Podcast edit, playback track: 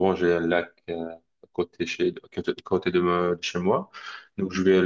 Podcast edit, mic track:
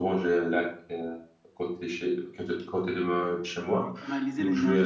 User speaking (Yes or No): Yes